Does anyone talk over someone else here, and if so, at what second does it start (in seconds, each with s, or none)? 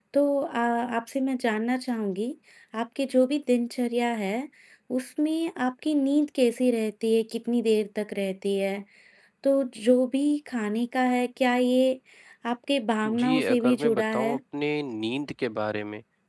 13.1 s